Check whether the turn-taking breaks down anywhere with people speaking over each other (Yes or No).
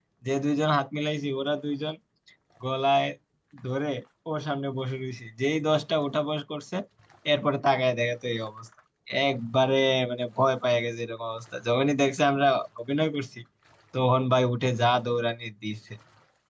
No